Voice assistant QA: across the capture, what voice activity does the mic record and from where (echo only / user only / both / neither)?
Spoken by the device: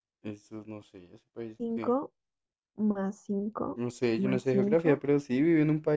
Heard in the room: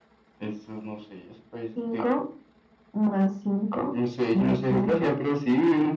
echo only